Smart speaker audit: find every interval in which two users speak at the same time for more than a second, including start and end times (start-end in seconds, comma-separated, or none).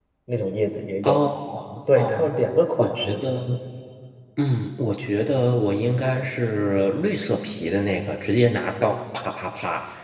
none